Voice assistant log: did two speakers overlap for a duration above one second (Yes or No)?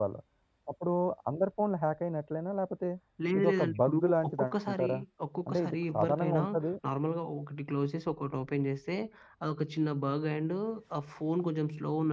Yes